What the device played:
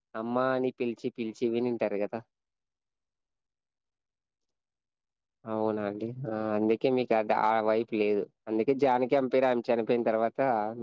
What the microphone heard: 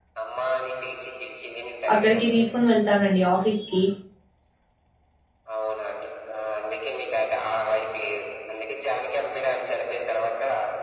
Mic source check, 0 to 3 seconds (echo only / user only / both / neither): both